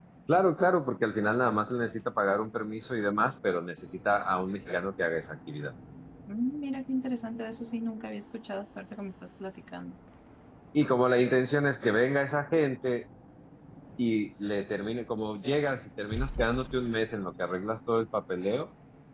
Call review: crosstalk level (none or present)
none